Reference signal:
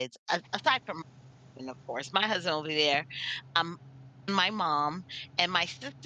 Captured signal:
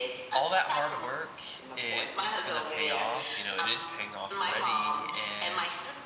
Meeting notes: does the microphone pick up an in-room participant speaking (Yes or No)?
Yes